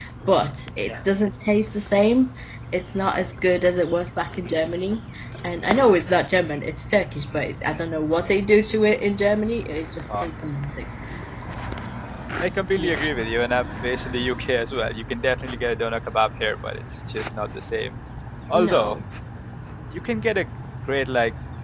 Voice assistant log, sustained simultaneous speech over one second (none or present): none